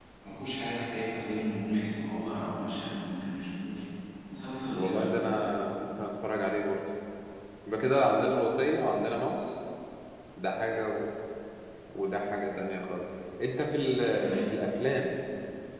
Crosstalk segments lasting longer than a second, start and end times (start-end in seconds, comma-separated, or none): none